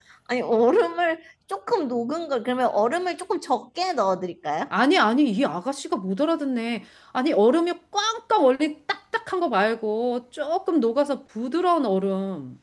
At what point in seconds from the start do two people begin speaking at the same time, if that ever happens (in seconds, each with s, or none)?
none